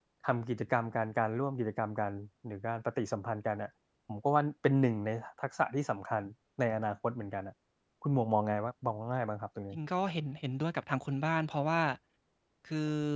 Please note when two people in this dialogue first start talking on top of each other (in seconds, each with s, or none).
none